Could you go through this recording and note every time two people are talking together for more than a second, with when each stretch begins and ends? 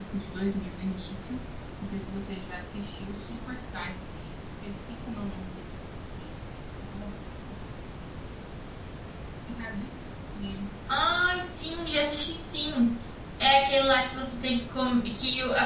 none

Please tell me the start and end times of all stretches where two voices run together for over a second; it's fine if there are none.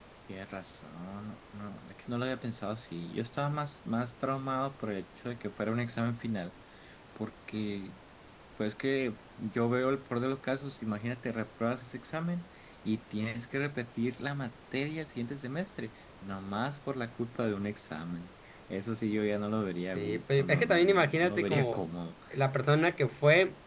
19.9-21.8

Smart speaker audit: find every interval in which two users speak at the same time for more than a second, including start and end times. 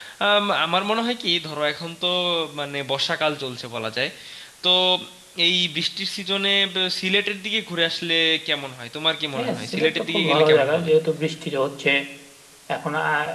9.4-10.9

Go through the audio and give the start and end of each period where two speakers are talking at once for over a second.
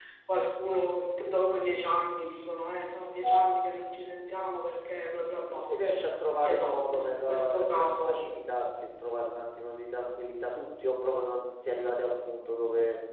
6.4-8.2

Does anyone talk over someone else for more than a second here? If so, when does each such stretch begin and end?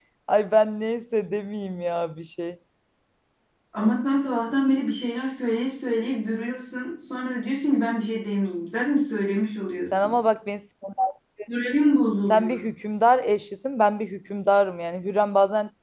none

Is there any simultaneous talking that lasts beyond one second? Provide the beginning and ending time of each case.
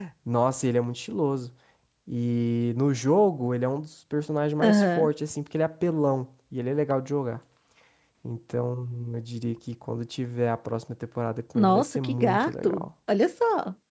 11.6-12.9

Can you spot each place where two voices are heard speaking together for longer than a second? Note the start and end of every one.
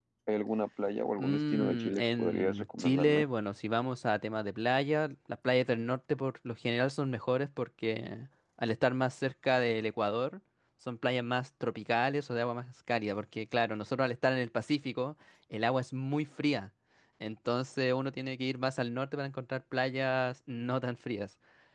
1.1-3.2

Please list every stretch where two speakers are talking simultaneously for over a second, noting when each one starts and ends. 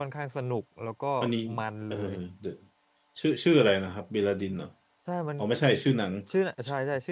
none

